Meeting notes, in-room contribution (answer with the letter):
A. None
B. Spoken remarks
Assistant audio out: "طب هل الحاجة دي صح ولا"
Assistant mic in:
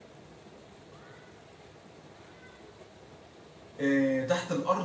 B